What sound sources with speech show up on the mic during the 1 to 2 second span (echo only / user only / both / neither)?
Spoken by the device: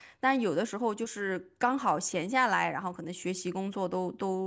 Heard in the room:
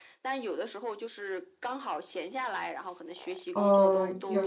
echo only